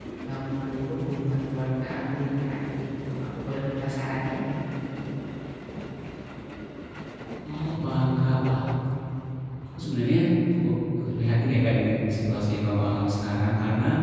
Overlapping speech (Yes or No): No